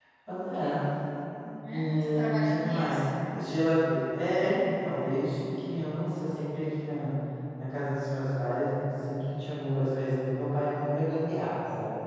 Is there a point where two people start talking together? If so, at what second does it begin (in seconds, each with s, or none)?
1.6 s